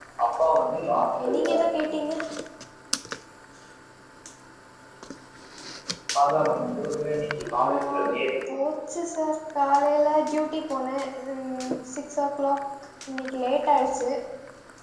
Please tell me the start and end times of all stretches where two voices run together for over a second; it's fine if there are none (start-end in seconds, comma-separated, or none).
0.7-2.0